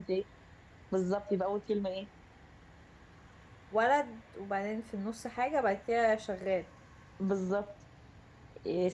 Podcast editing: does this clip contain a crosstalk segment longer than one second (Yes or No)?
No